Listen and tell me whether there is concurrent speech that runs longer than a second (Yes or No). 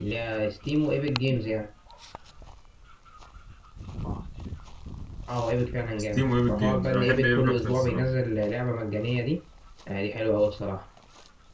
Yes